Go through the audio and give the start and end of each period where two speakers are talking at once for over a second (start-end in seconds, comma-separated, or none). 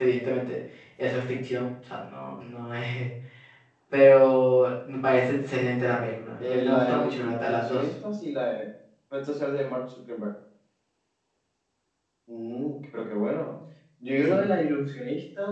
6.4-7.8